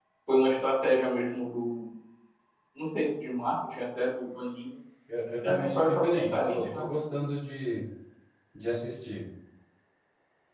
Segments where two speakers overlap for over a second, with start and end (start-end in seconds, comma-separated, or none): 5.4-6.9